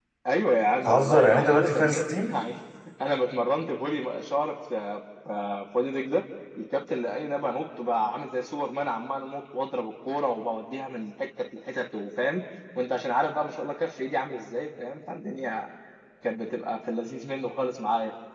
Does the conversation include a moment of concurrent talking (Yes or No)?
Yes